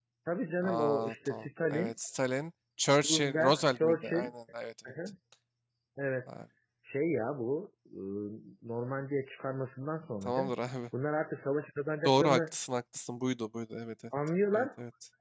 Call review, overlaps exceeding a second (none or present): present